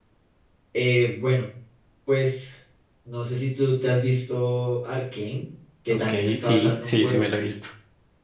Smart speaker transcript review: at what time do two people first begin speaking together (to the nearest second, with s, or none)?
6 s